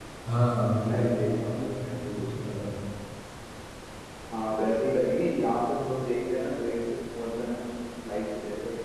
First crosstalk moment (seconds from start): 0.8 s

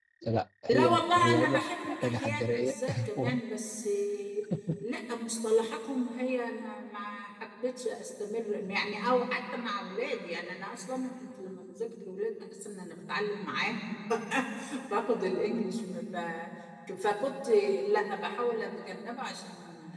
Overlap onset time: 0.7 s

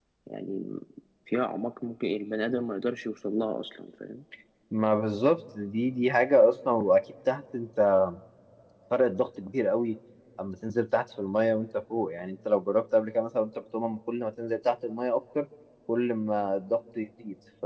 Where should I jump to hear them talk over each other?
none

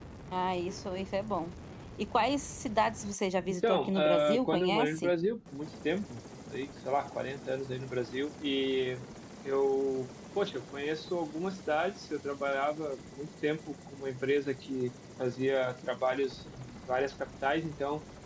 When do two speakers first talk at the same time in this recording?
3.5 s

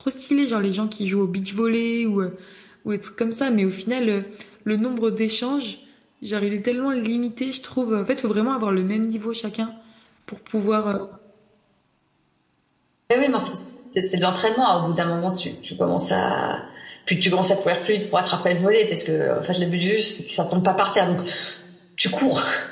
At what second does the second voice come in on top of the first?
none

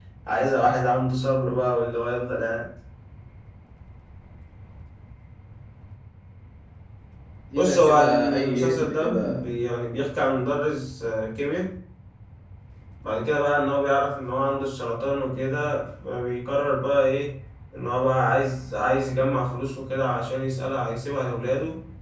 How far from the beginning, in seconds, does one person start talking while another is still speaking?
7.5 s

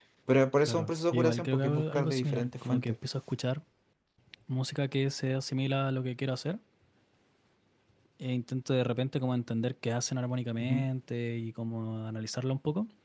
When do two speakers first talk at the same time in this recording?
0.7 s

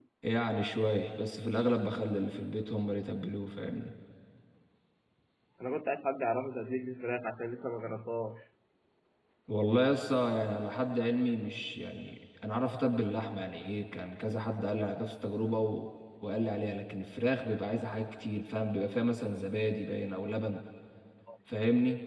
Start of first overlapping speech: none

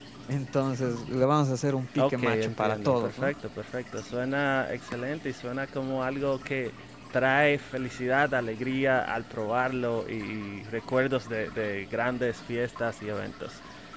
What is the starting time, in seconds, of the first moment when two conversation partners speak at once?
2.0 s

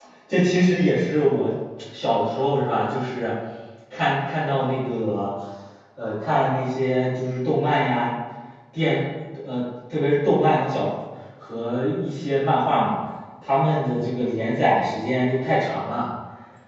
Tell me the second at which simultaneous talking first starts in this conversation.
none

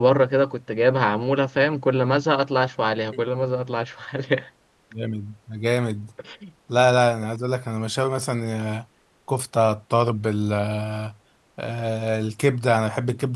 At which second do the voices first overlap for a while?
none

